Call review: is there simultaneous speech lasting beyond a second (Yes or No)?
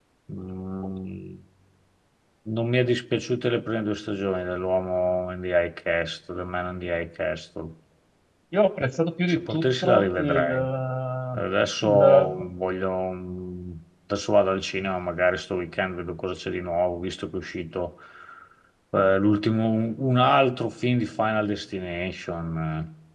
Yes